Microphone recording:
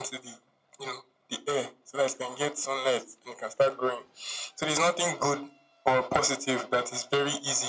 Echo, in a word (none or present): present